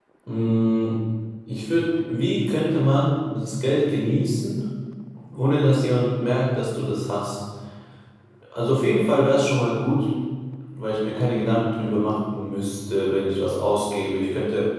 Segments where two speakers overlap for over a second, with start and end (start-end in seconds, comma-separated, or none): none